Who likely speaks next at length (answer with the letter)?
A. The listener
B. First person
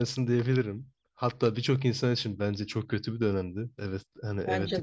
B